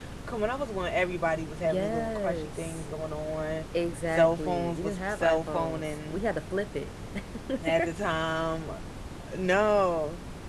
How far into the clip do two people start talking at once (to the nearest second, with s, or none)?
2 s